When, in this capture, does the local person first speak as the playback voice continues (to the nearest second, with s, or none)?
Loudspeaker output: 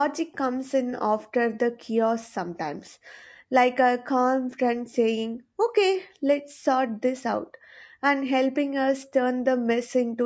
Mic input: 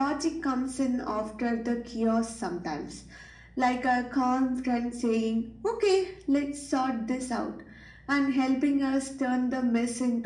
none